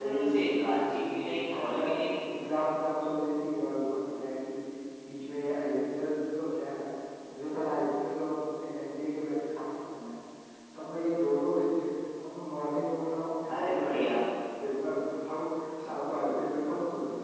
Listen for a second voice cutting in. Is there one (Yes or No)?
Yes